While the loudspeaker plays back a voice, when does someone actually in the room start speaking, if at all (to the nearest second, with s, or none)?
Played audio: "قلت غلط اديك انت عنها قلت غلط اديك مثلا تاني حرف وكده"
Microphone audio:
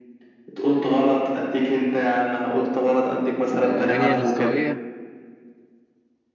4 s